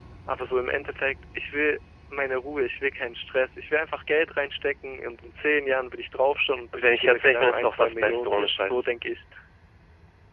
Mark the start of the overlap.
6.7 s

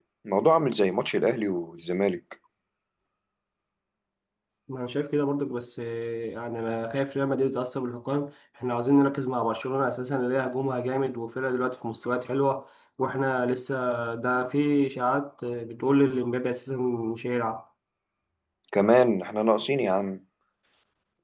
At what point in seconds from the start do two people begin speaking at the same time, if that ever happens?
none

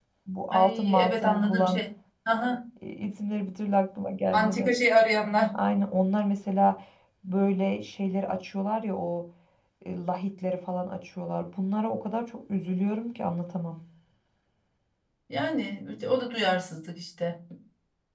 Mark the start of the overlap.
0.5 s

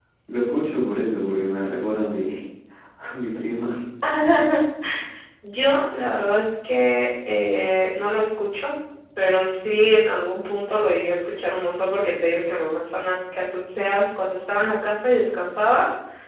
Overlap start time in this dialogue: none

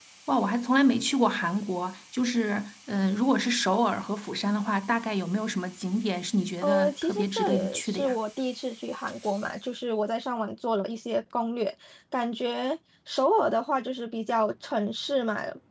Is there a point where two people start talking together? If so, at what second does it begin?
6.6 s

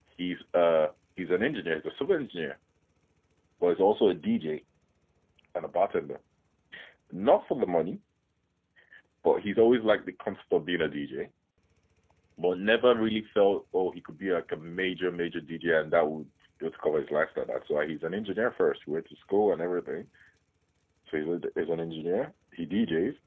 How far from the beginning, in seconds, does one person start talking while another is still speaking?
none

